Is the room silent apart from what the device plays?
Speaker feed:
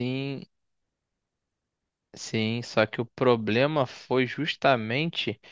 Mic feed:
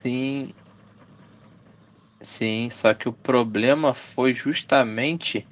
Yes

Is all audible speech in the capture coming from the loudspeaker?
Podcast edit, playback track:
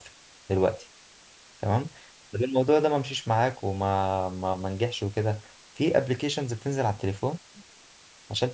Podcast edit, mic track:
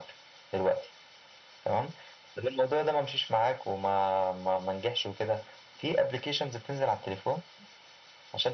Yes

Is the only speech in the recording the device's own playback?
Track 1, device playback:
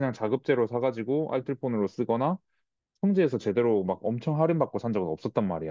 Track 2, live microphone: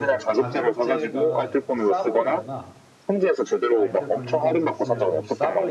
No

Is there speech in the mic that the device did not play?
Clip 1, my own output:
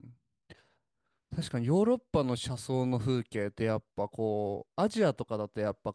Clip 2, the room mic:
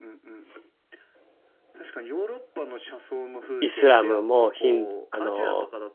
Yes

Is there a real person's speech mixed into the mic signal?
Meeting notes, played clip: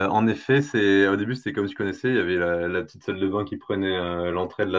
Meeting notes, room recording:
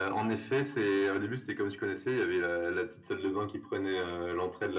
No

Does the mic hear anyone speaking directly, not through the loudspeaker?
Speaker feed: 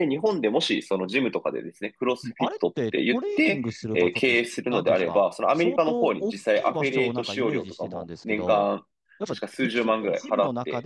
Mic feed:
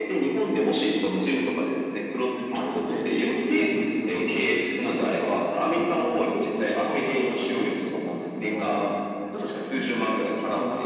No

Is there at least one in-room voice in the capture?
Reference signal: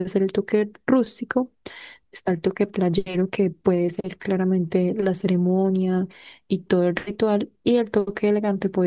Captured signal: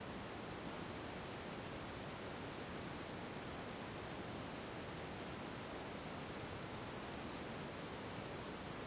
No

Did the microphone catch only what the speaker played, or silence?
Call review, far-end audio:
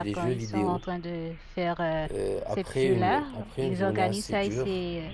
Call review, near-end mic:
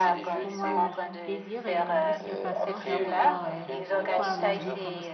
No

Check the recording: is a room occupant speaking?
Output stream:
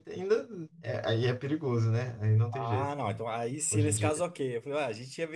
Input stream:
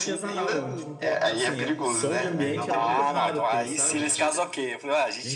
Yes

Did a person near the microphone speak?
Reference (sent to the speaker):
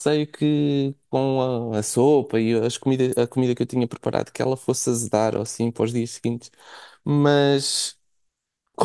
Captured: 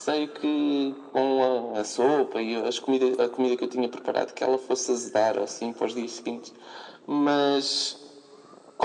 No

